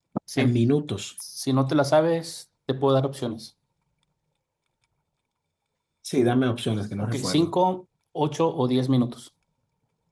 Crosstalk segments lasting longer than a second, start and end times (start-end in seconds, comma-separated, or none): none